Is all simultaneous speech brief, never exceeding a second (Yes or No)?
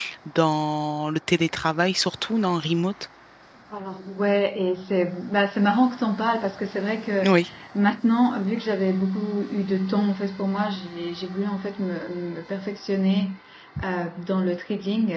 Yes